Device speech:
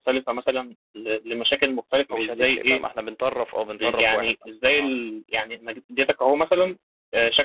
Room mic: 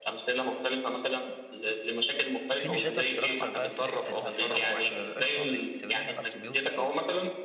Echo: present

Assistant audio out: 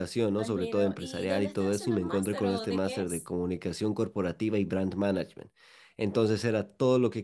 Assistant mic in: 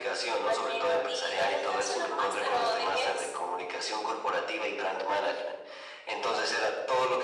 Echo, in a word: present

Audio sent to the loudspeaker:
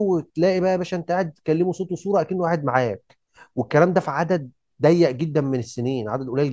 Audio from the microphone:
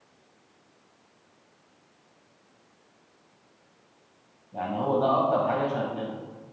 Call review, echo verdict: none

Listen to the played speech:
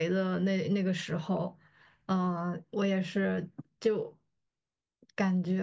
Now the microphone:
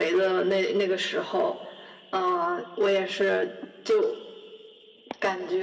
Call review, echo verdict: present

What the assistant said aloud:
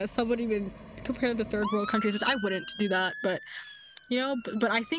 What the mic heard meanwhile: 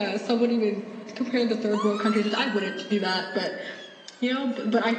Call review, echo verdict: present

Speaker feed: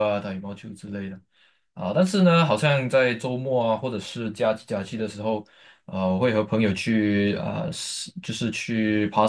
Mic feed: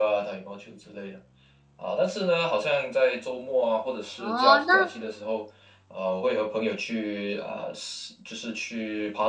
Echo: present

